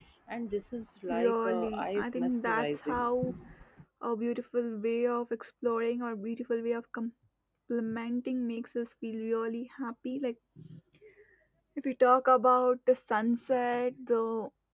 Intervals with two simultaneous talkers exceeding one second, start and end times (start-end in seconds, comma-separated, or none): 1.1-3.1